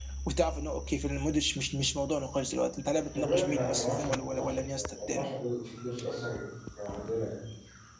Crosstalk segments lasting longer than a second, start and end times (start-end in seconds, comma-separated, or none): 3.1-5.3